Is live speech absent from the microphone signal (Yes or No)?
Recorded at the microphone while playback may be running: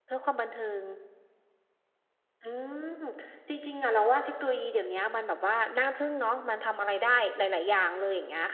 Yes